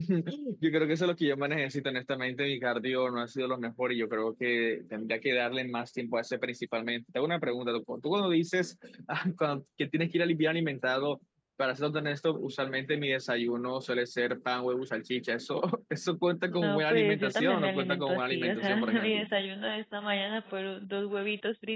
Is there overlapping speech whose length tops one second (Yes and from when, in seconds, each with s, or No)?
Yes, from 16.5 s